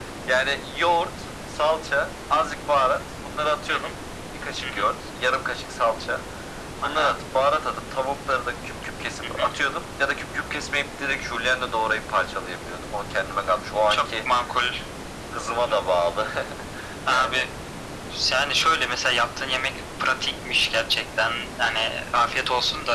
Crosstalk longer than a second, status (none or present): none